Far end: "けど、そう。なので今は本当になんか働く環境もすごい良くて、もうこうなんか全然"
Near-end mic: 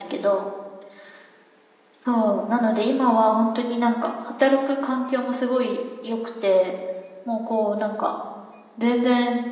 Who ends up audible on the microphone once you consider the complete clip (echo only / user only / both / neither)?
echo only